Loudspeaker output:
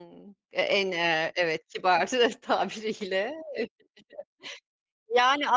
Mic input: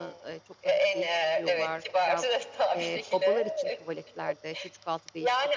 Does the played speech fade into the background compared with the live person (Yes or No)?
No